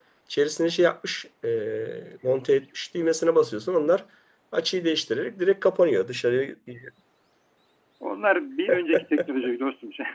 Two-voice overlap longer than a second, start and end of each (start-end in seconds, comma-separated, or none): none